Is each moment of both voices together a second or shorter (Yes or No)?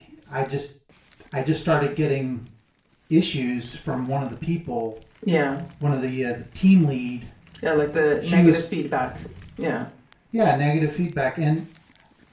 Yes